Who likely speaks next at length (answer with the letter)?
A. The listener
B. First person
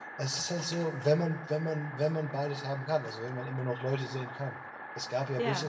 B